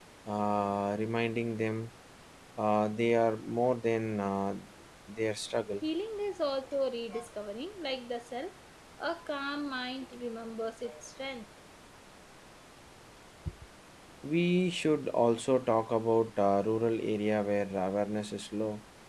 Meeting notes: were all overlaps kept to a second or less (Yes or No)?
Yes